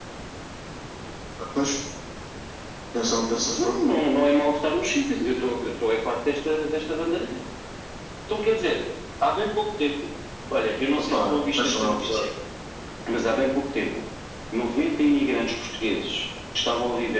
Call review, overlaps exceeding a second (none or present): present